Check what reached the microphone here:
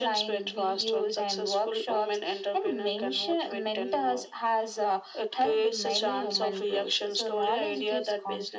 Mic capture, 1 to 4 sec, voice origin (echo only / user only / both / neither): echo only